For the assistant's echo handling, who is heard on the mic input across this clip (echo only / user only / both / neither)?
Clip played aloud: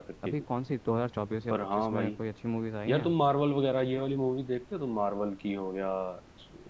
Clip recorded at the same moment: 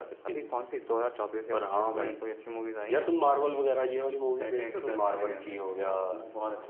both